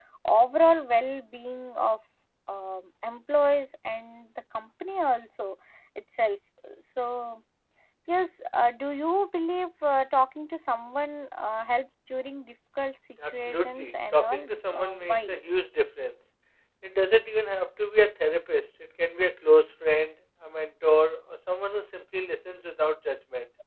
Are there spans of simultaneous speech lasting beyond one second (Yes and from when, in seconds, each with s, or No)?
Yes, from 13.2 s